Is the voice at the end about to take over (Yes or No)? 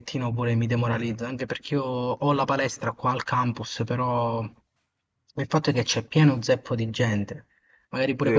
Yes